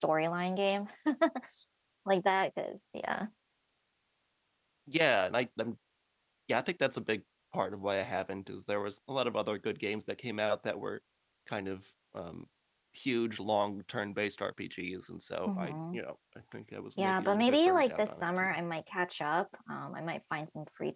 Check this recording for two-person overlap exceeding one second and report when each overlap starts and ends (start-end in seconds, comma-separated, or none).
17.0-18.6